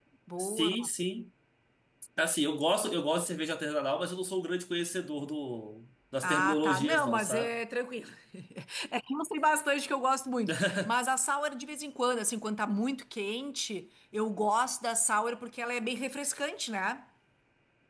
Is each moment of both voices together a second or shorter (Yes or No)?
No